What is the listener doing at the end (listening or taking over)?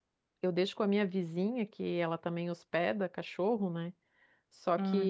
listening